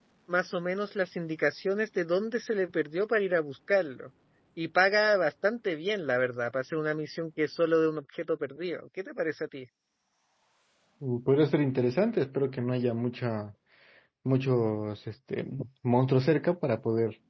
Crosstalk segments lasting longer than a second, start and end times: none

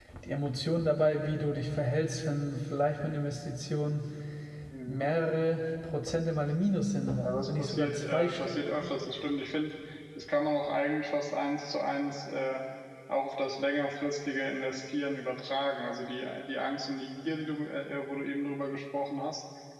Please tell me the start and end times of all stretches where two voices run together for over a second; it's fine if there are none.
7.1-8.6

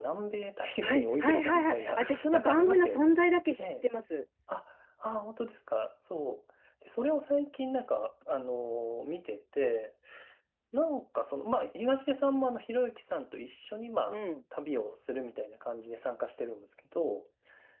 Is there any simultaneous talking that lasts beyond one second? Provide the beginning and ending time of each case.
0.8-3.1

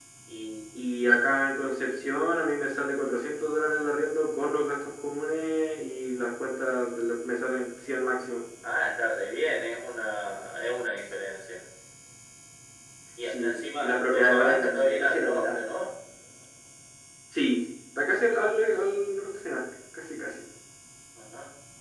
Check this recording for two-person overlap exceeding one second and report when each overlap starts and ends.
13.3-15.6

